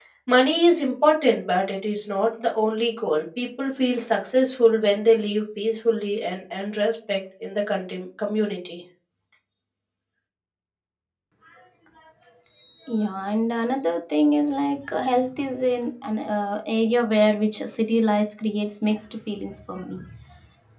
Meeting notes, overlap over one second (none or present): none